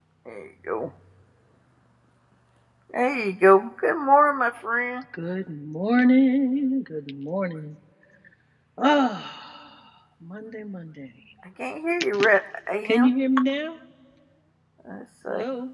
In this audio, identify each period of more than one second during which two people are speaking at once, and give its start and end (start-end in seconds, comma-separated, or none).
none